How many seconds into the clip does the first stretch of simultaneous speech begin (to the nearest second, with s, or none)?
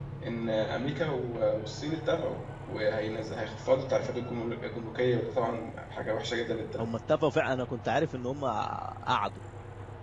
none